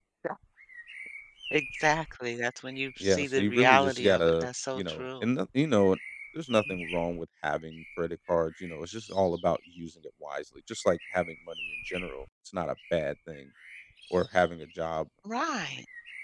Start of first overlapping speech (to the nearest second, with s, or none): 3 s